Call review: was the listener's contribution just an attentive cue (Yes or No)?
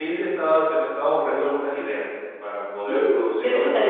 No